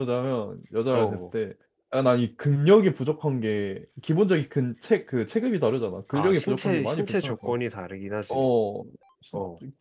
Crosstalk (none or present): present